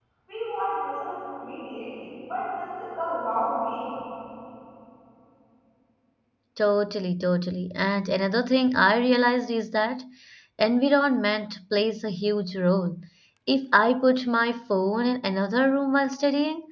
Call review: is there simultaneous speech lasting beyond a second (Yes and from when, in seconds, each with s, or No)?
No